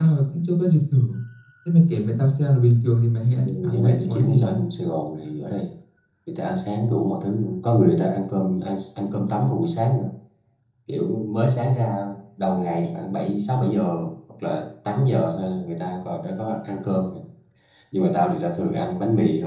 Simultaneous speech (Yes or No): Yes